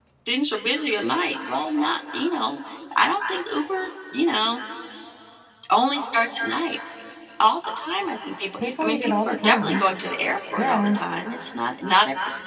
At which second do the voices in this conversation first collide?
8.6 s

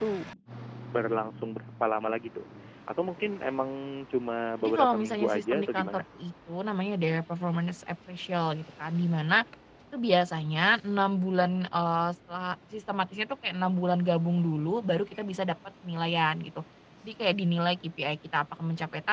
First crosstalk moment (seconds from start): 4.6 s

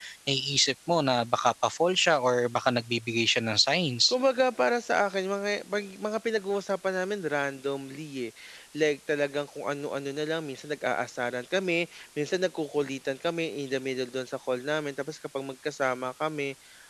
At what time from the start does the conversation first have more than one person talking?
none

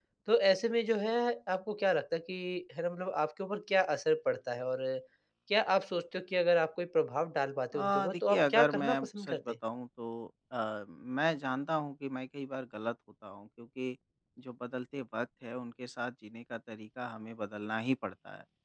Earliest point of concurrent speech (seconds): 7.7 s

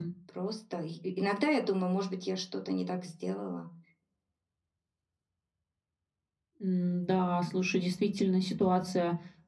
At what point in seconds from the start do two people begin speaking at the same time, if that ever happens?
none

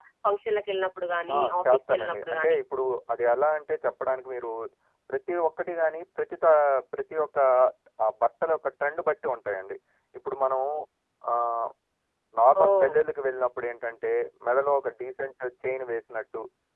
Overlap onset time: 1.3 s

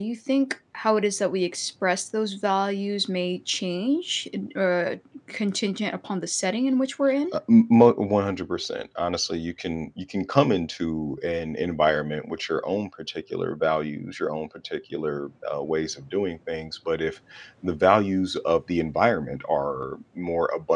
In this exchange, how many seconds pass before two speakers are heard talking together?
none

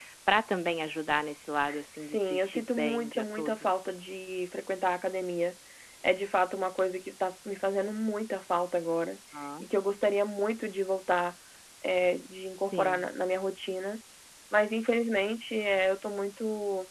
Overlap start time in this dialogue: 2.0 s

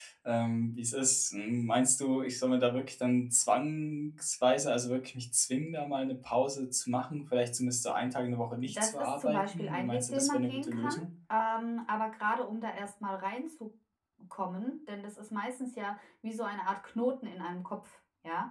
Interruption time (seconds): 8.6 s

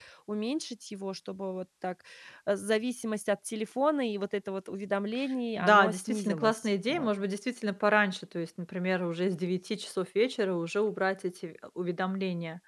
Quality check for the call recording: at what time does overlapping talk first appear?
5.6 s

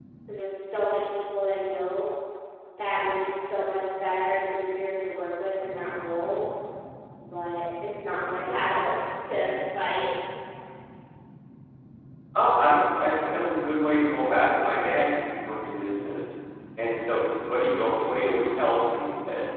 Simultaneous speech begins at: none

